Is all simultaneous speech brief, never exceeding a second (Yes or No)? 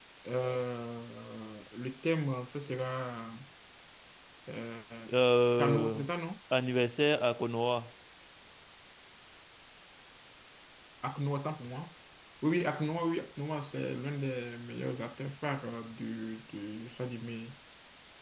Yes